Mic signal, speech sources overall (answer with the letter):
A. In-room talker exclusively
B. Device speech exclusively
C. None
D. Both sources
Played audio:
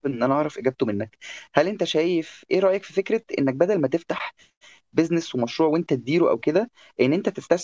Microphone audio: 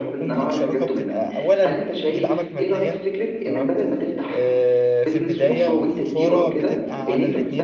D